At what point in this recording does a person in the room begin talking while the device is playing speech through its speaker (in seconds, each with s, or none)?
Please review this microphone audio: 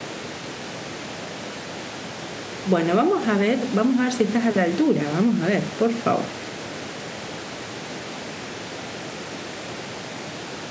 2.6 s